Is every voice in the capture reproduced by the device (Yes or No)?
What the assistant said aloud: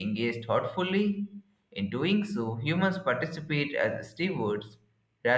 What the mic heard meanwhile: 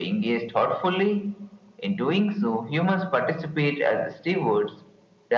Yes